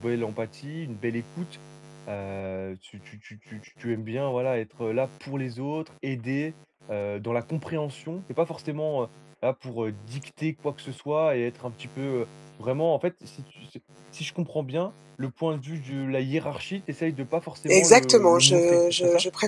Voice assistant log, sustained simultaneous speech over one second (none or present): present